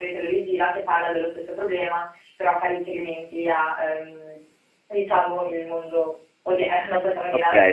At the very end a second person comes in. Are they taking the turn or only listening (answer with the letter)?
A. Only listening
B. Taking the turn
B